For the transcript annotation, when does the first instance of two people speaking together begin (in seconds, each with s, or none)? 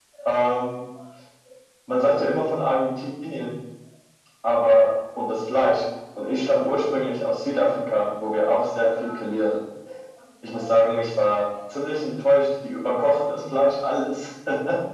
none